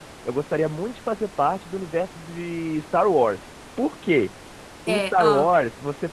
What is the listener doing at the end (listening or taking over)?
listening